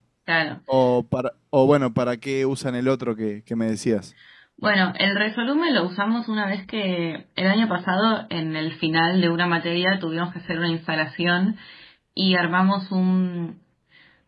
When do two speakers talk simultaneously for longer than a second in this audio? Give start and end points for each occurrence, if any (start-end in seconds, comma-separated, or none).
none